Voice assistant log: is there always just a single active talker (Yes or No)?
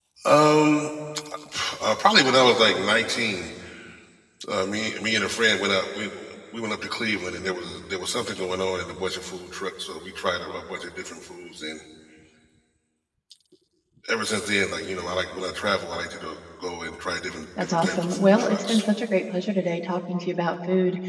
No